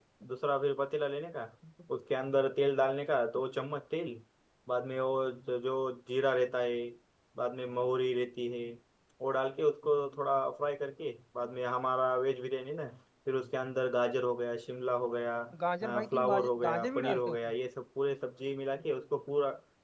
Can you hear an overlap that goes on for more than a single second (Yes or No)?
Yes